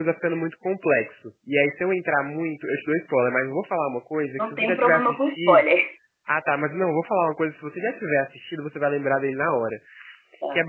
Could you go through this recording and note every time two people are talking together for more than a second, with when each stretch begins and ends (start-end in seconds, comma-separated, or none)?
4.4-5.6